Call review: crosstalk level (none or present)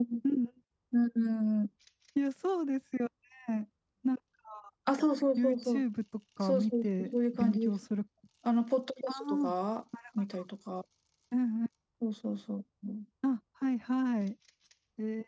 present